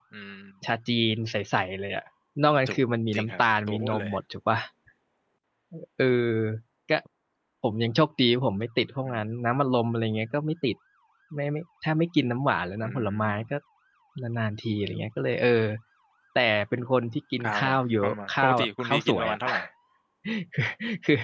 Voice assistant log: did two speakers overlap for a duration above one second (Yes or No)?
Yes